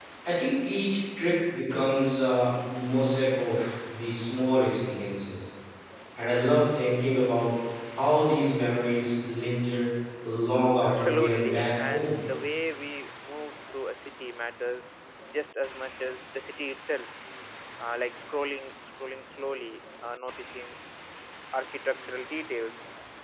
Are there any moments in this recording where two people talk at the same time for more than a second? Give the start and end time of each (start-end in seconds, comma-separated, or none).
10.8-12.1